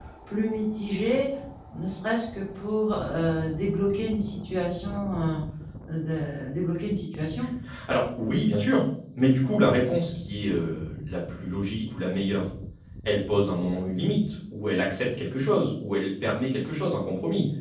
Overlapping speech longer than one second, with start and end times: none

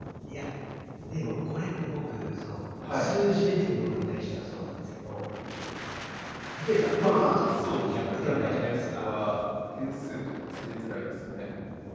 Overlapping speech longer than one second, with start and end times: 6.9-9.1

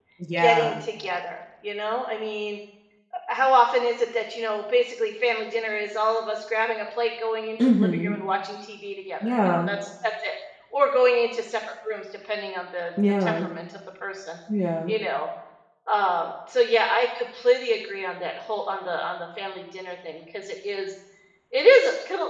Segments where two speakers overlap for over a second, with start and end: none

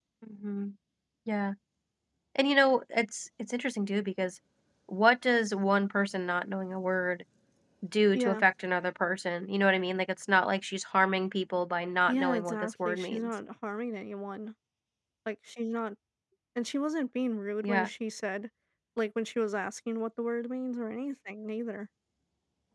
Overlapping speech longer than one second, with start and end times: 12.1-13.3

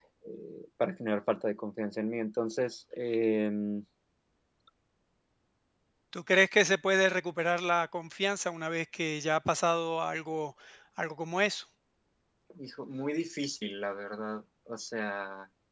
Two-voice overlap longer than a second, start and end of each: none

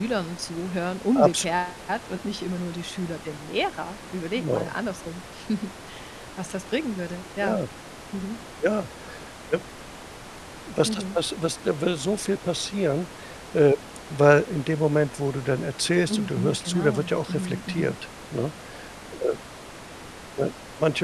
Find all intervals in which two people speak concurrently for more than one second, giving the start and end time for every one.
16.1-18.0

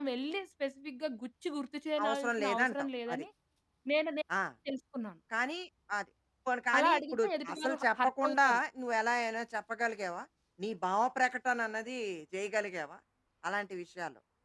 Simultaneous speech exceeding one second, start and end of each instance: 2.0-3.2, 6.8-8.6

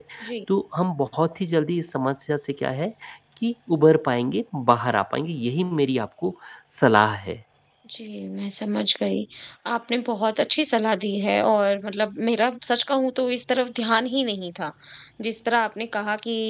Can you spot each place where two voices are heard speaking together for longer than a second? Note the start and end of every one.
none

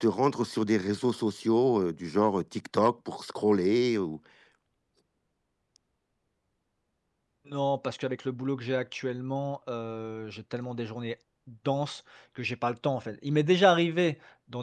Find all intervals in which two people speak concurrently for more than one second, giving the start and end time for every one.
none

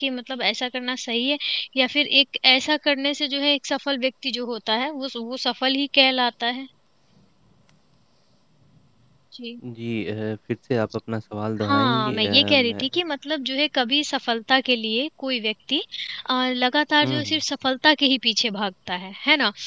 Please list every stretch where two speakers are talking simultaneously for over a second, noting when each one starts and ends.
11.6-12.8

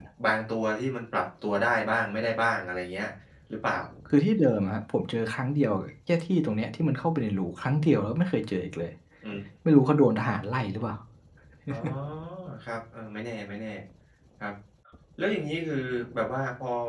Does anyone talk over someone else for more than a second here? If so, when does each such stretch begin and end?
none

